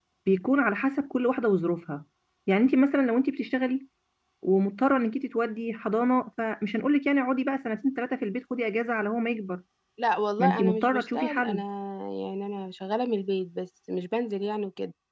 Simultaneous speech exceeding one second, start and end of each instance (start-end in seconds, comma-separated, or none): 10.4-11.6